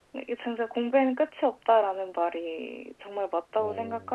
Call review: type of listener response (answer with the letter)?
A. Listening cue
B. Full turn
A